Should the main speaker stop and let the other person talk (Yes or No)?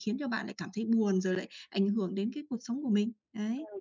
Yes